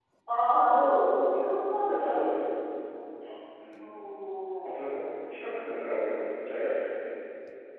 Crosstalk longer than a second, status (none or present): none